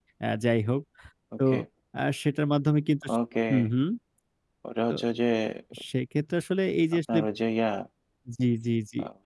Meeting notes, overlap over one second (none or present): none